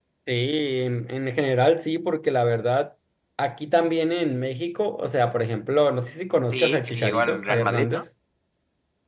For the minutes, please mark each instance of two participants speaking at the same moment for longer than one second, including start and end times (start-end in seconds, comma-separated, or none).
6.5-8.0